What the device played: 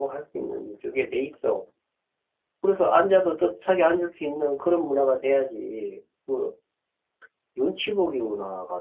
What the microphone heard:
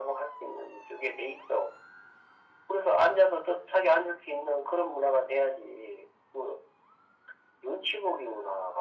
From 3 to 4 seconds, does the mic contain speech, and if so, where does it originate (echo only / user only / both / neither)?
echo only